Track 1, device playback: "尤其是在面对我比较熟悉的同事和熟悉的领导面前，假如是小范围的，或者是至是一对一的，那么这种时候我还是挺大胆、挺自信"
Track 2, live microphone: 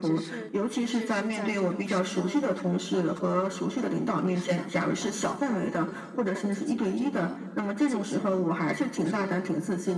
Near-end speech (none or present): present